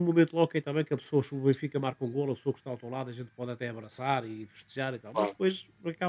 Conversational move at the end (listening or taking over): listening